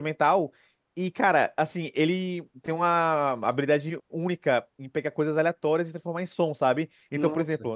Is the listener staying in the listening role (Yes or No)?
Yes